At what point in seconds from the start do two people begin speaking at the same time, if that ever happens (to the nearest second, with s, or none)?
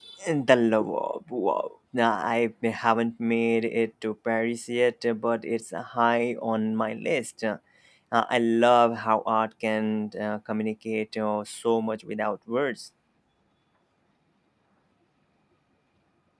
none